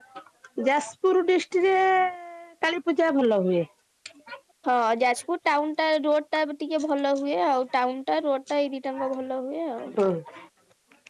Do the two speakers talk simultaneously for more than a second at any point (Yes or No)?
No